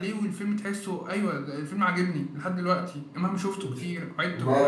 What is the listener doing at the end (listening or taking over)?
taking over